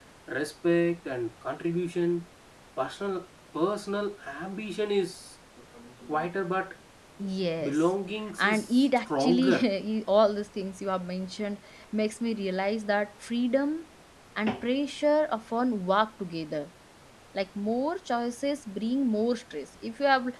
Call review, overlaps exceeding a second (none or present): present